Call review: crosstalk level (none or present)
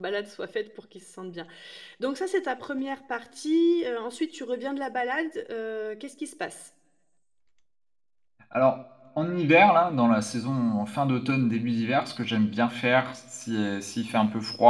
none